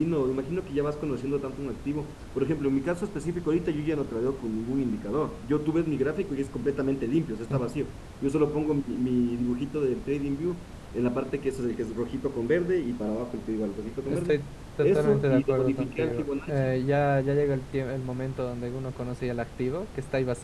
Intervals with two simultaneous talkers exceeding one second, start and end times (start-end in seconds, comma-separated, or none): 14.8-16.8